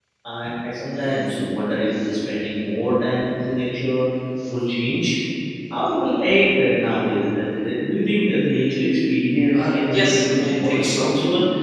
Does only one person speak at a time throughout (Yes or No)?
No